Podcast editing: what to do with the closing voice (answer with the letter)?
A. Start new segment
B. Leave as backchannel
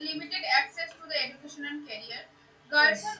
B